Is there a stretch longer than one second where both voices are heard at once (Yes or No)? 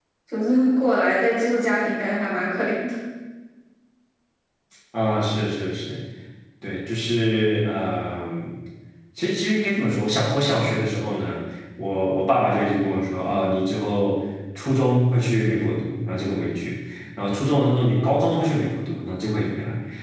No